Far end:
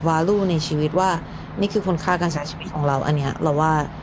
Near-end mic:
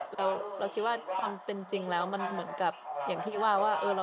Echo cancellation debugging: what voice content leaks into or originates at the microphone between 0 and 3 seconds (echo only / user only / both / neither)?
both